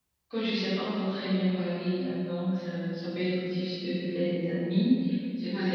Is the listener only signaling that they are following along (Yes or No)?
Yes